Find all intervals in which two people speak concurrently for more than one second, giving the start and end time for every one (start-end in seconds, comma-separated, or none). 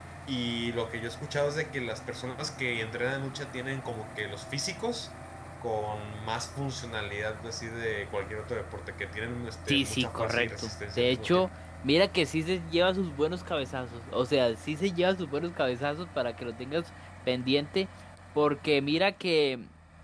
9.7-11.5